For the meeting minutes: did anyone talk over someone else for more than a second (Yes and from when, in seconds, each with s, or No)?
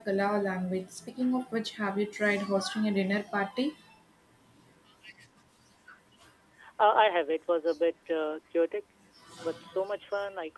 No